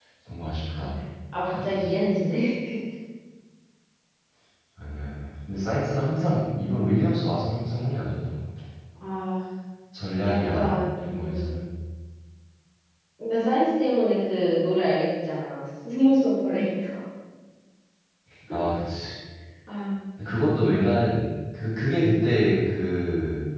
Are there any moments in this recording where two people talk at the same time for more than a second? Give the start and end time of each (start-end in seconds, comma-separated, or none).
10.3-11.6